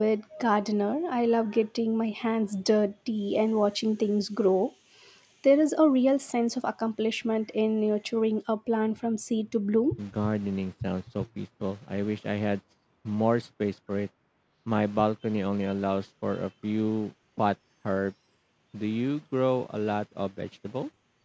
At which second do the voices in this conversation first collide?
none

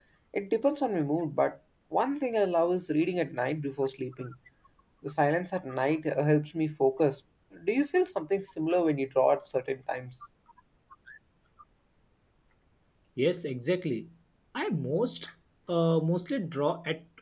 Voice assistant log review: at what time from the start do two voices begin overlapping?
none

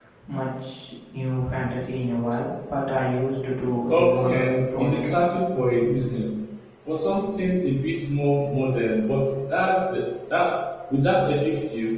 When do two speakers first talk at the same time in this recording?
3.9 s

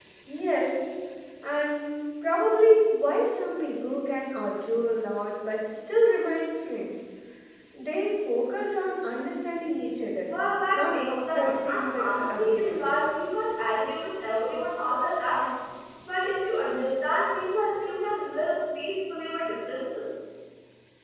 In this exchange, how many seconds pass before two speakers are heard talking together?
10.7 s

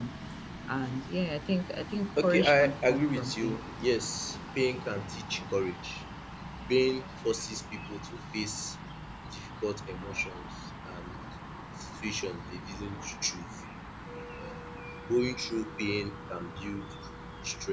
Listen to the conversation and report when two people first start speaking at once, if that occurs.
2.2 s

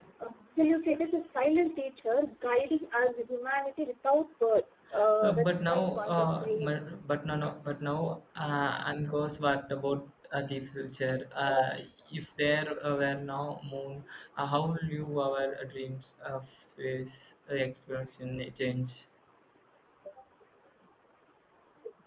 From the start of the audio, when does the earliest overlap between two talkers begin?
5.2 s

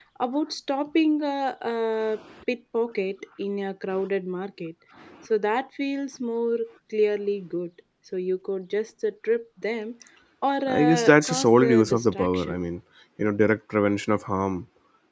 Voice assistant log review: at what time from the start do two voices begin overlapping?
10.7 s

